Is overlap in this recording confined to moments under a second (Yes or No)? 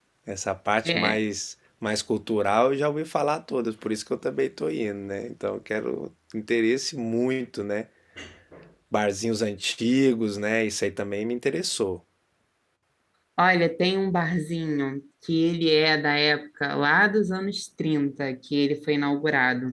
Yes